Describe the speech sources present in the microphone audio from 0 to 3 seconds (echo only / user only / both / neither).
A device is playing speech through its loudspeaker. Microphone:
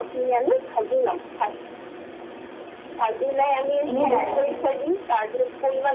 echo only